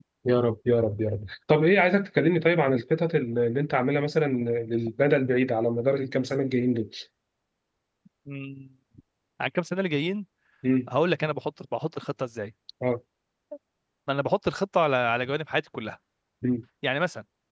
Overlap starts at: none

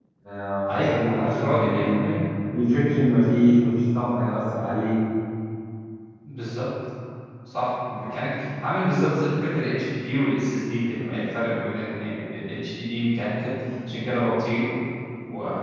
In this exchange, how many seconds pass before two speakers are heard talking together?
1 s

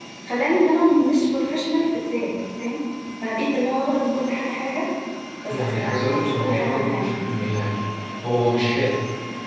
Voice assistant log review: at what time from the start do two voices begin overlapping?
5 s

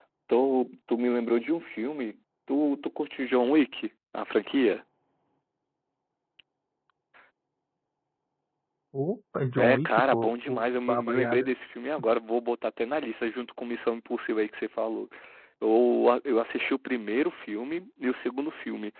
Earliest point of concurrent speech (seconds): 10 s

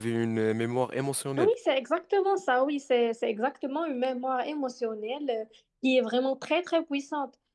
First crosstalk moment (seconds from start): none

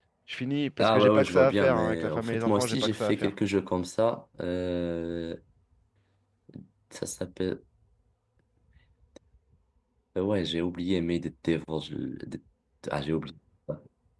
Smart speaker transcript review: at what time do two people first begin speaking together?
1 s

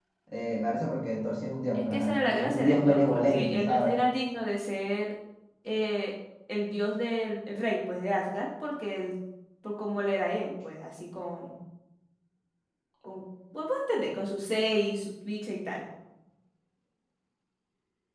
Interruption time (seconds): 2 s

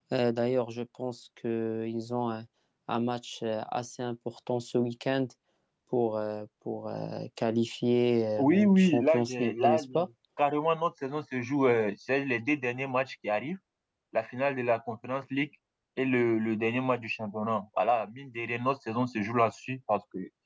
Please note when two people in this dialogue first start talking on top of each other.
8 s

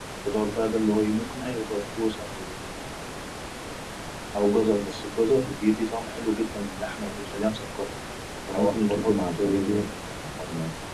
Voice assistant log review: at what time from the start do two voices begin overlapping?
8 s

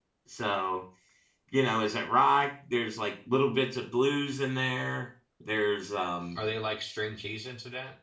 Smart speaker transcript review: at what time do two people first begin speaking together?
none

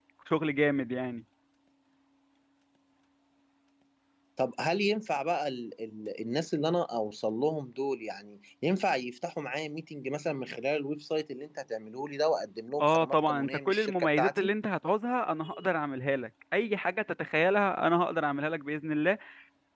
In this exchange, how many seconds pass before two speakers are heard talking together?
13 s

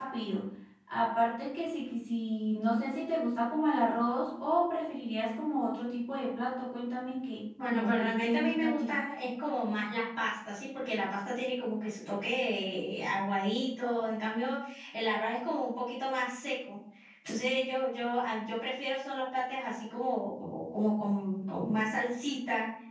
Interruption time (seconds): 8 s

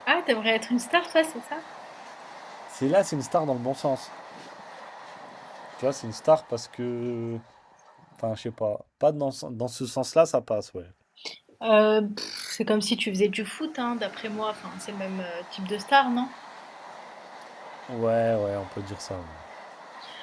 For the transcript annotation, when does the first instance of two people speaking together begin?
none

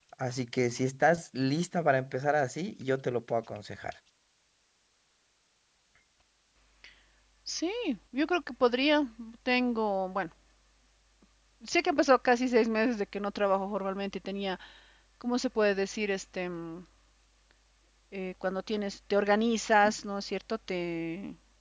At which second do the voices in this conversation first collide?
none

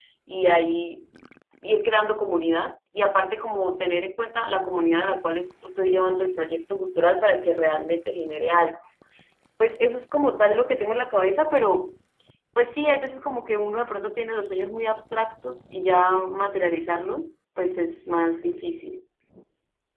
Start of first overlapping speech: none

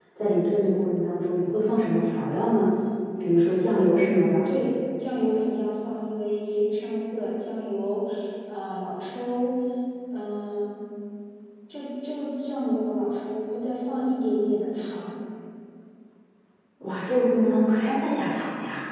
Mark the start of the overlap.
none

